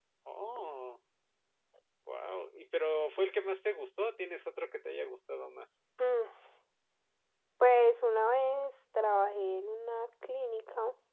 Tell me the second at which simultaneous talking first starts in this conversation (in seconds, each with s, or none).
none